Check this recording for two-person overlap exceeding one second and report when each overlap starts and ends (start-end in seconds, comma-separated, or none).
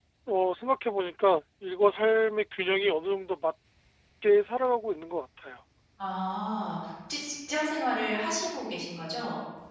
none